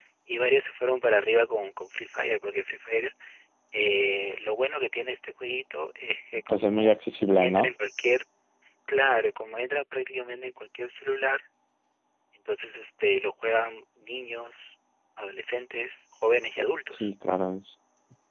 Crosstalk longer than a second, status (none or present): none